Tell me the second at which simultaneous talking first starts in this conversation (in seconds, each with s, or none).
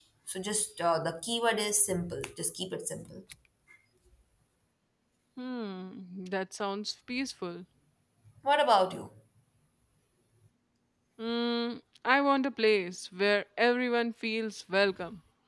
none